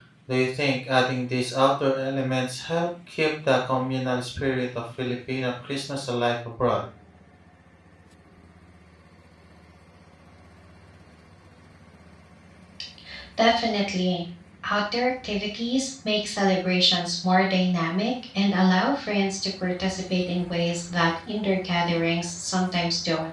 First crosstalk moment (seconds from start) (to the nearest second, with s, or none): none